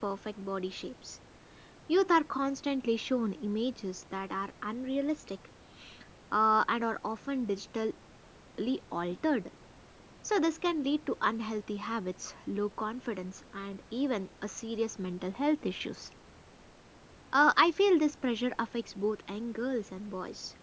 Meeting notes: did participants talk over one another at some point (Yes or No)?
No